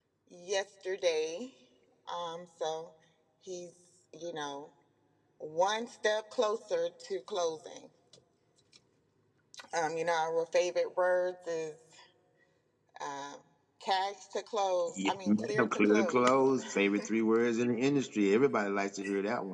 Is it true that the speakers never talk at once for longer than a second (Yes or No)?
No